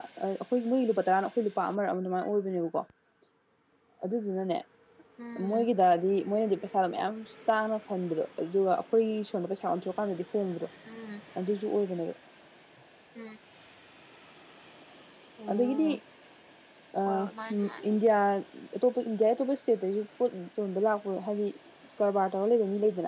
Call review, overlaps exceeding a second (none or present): none